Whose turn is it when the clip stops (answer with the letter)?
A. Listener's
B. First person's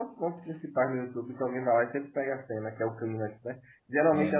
B